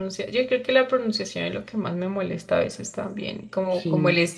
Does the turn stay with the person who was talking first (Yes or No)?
Yes